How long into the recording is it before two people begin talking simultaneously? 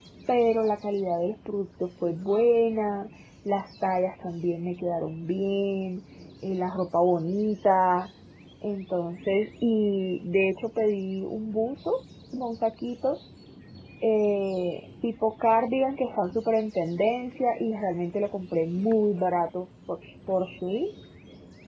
none

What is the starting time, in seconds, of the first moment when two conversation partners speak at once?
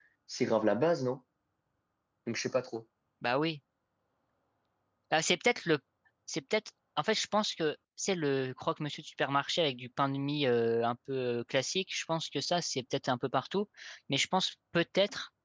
none

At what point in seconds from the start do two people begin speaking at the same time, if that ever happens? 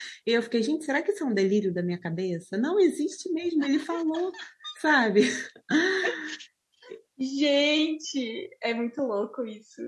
none

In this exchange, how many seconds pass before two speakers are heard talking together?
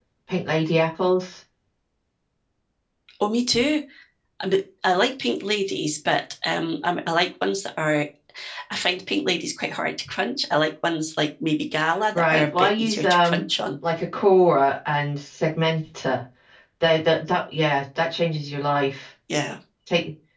12.1 s

